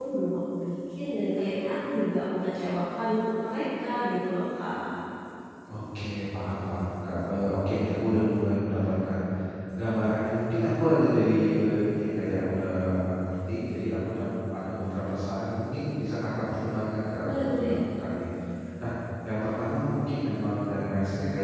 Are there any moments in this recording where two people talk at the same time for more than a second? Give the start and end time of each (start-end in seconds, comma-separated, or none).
none